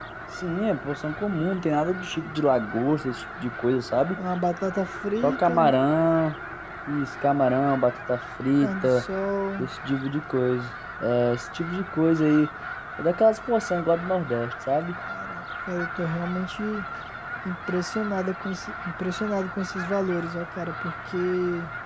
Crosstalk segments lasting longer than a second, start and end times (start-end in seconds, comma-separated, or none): none